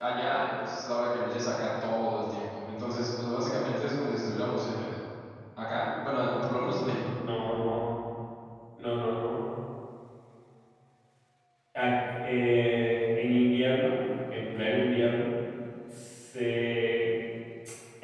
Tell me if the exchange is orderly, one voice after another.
Yes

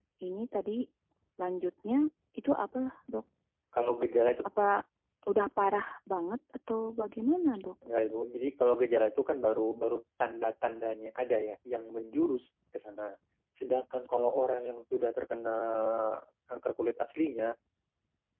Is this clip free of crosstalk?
Yes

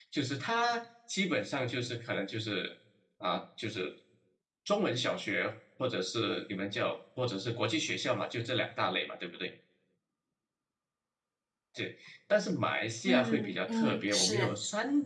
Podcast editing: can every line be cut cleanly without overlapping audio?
No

